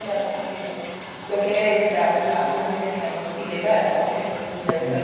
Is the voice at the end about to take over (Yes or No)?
No